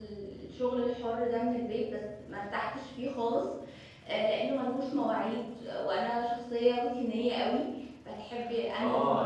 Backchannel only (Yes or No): No